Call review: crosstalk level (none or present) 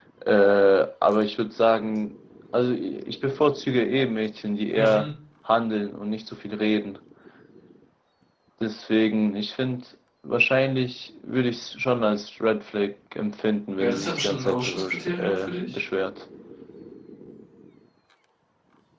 present